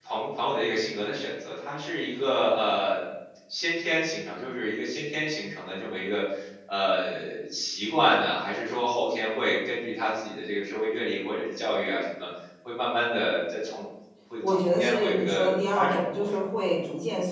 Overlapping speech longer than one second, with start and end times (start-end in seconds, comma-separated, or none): 14.5-16.4